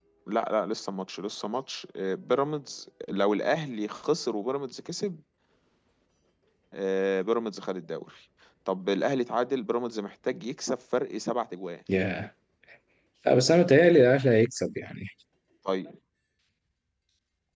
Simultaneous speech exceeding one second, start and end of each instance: none

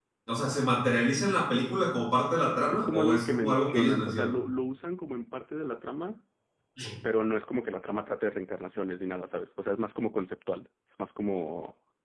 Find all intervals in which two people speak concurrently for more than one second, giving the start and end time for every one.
2.7-4.4

